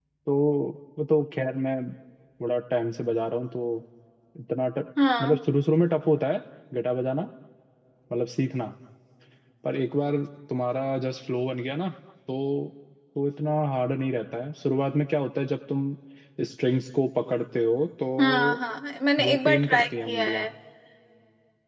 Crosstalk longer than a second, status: present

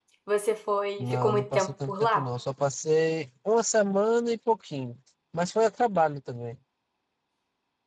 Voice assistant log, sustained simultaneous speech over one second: present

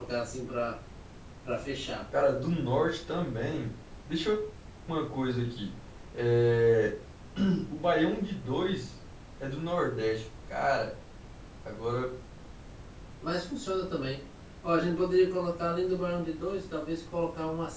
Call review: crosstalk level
none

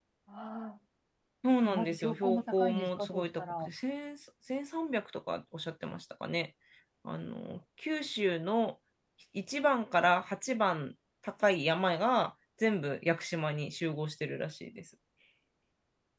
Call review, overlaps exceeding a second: present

